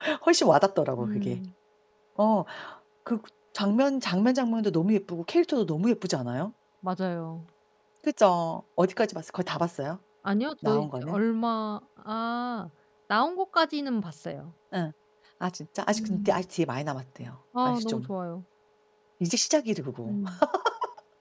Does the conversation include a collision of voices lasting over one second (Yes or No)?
No